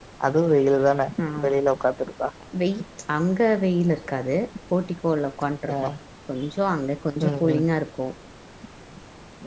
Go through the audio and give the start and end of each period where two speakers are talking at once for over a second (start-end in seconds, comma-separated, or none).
none